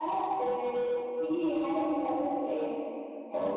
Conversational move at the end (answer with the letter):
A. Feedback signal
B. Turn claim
B